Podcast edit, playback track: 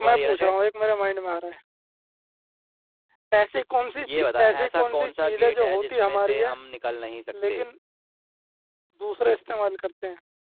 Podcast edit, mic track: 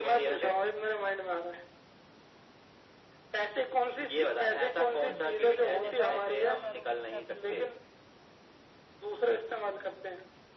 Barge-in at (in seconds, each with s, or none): 5.0 s